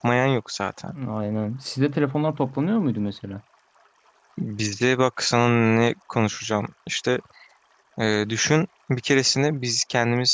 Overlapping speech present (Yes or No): No